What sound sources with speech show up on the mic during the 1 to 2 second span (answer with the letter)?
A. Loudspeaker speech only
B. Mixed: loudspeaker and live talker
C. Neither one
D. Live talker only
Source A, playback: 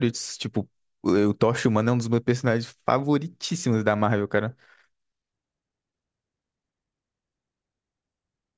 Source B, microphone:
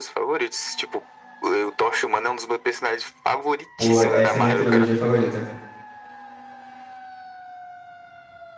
A